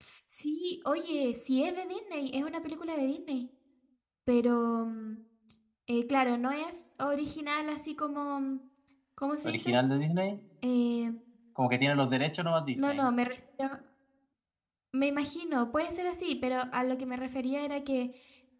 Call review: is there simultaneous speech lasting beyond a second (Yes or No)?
No